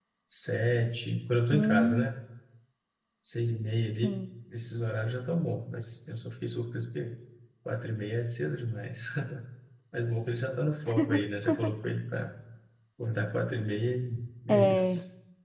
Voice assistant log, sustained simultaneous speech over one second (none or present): none